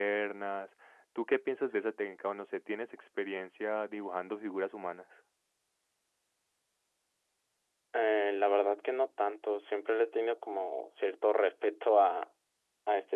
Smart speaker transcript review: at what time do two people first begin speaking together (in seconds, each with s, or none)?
none